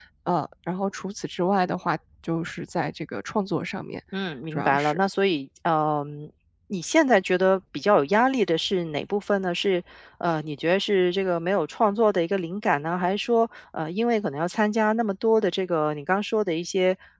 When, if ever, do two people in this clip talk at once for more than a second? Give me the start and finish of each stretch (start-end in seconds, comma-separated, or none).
none